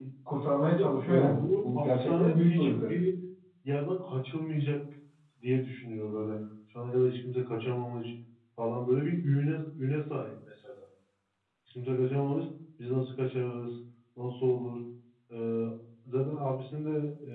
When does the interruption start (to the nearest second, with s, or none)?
1 s